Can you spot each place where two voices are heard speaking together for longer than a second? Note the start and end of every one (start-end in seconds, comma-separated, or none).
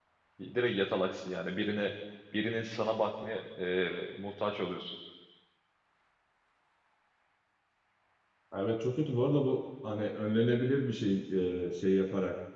none